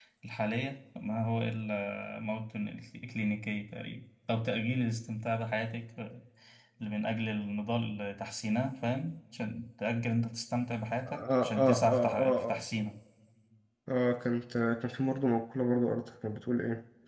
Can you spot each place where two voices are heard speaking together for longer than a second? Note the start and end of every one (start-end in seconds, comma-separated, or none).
11.1-12.6